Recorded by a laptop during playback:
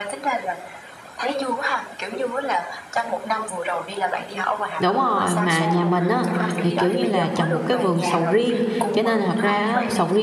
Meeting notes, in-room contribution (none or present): present